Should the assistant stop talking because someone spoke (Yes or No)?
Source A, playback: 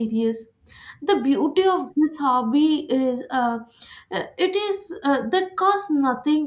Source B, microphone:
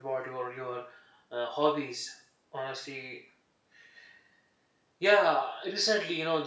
Yes